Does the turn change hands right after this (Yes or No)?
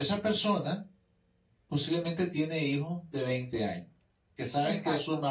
No